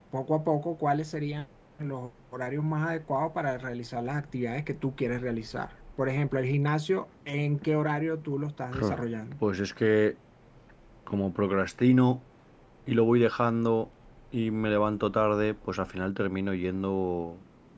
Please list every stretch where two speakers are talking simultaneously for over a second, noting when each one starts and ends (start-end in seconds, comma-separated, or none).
none